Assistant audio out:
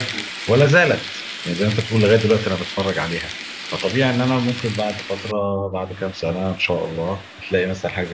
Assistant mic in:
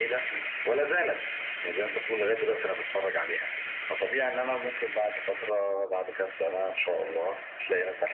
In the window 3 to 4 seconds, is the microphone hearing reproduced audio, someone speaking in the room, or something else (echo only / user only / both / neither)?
echo only